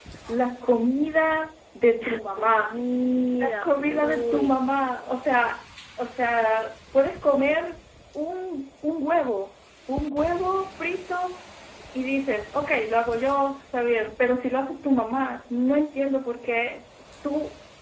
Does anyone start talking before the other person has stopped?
Yes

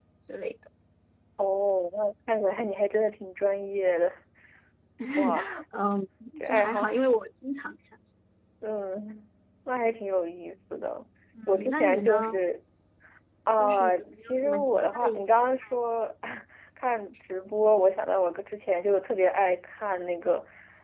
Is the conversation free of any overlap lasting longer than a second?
No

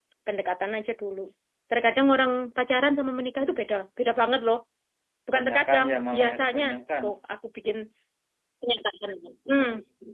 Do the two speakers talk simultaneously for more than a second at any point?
Yes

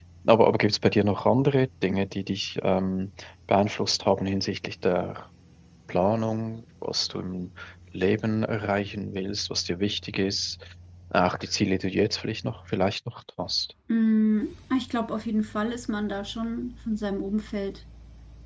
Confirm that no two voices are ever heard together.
Yes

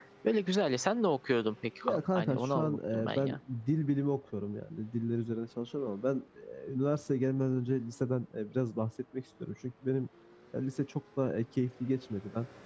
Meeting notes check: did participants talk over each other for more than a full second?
Yes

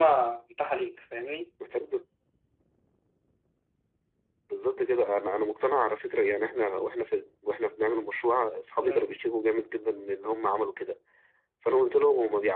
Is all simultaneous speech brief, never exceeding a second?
Yes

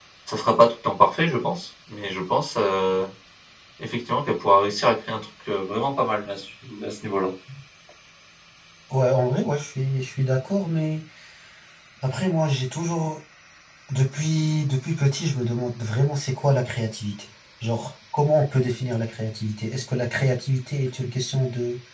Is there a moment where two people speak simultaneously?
No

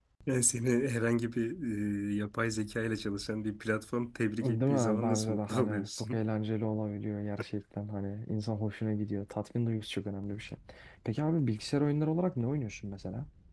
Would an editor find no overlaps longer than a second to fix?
No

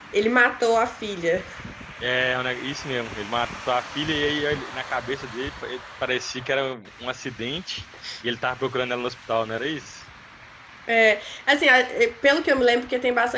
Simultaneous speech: No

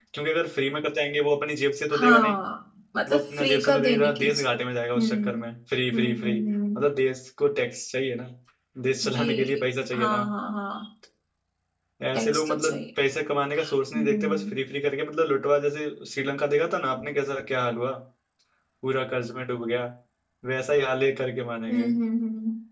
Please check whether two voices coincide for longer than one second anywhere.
Yes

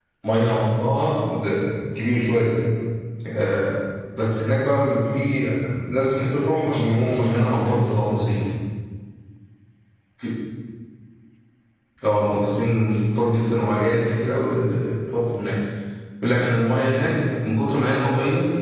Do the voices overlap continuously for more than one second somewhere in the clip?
Yes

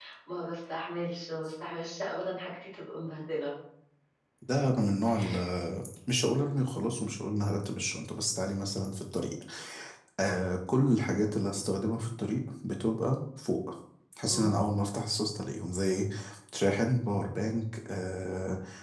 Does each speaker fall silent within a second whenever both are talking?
Yes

